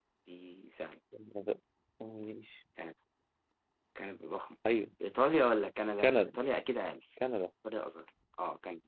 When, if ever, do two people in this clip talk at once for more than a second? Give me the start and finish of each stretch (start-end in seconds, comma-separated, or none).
none